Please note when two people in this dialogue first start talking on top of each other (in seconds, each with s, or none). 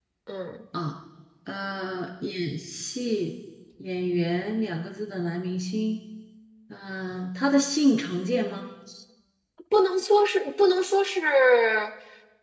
none